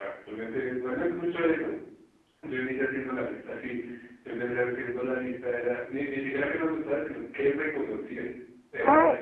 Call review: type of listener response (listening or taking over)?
taking over